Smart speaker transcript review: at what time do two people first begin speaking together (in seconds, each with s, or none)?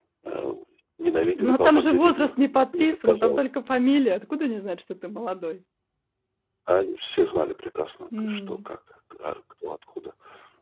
1.4 s